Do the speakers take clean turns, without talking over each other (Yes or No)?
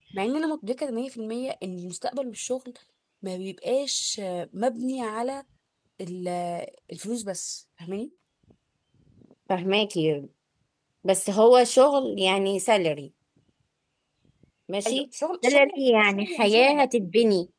No